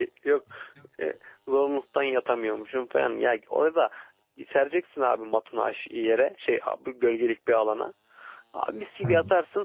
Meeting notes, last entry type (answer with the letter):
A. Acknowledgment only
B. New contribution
A